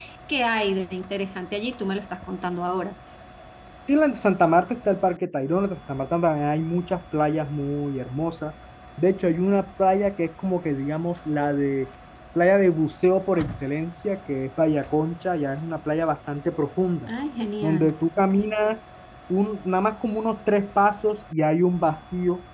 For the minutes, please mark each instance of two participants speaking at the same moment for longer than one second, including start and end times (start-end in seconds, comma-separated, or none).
none